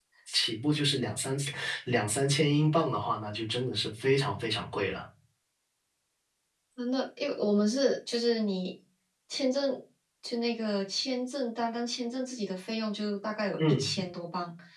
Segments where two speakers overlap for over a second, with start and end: none

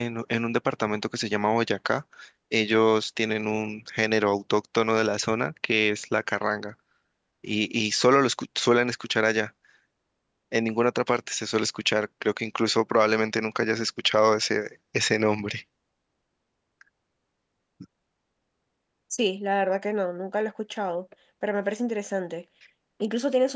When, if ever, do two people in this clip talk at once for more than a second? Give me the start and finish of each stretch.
none

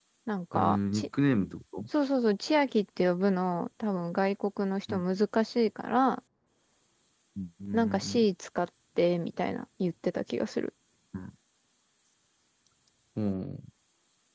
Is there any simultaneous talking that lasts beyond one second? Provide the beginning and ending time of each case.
none

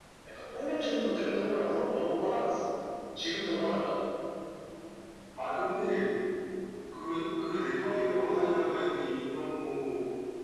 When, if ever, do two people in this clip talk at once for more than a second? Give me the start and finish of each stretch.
none

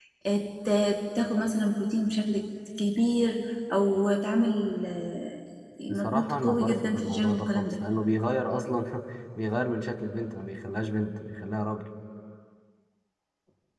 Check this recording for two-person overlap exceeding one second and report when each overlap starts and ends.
5.9-7.7

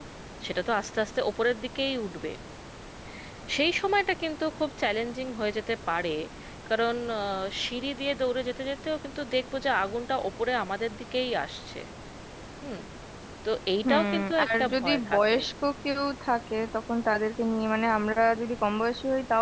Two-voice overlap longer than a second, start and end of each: 13.9-15.4

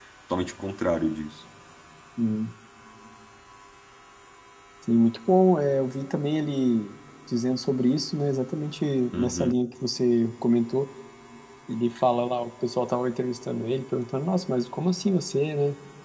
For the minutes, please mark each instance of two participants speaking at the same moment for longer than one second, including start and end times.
none

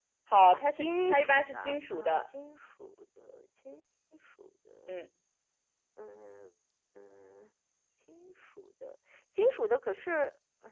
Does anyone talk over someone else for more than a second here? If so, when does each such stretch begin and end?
0.7-2.2

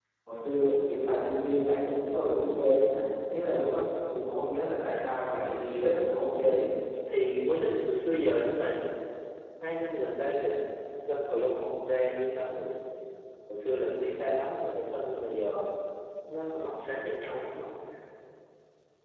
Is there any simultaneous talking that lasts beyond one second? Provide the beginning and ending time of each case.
none

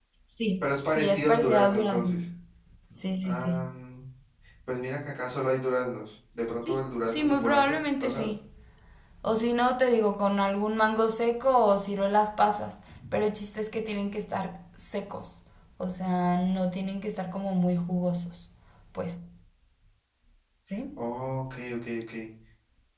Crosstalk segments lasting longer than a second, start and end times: 0.6-2.1, 6.6-8.3

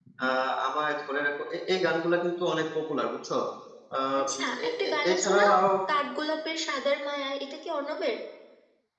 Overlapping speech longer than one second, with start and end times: 4.2-5.4

